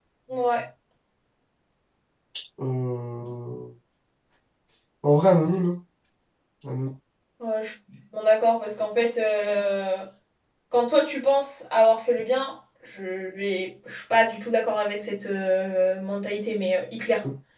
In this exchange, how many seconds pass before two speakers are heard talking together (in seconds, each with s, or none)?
none